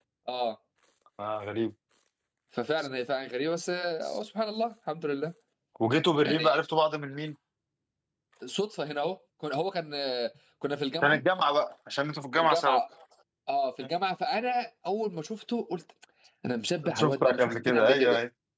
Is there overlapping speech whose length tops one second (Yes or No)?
Yes